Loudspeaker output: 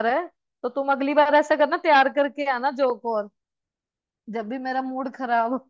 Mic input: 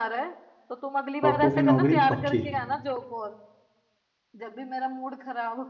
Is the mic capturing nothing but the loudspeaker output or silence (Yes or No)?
No